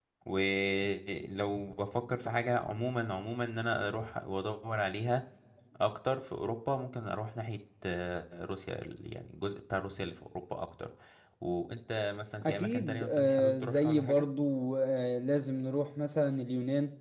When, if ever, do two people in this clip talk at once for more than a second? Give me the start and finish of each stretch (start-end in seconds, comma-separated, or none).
12.4-14.2